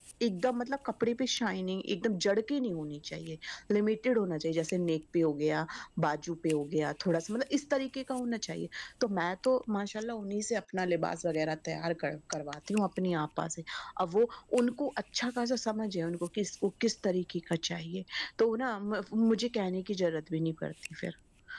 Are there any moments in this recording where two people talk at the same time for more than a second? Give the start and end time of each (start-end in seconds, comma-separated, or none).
none